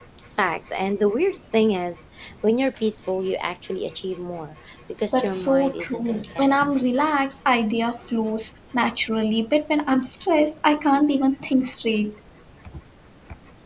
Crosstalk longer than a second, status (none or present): present